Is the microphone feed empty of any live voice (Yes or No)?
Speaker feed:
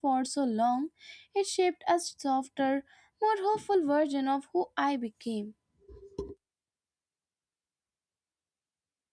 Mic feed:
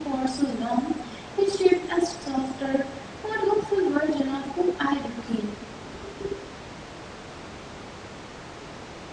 Yes